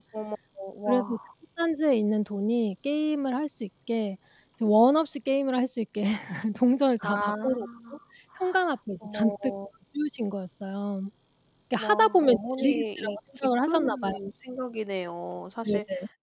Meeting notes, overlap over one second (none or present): present